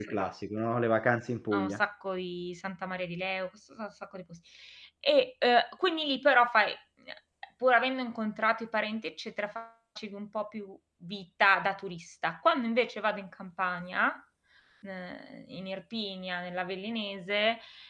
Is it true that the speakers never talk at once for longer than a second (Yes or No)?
Yes